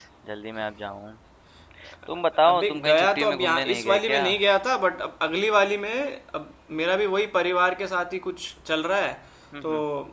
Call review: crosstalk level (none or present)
present